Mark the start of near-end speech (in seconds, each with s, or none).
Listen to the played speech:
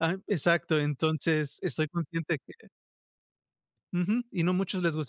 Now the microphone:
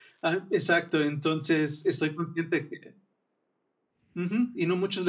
none